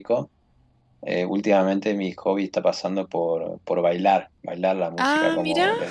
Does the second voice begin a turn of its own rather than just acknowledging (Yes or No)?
No